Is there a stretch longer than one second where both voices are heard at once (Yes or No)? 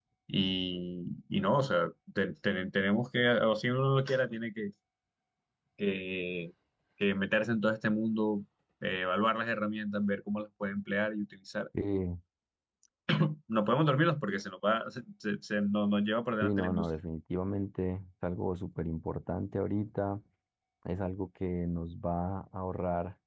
No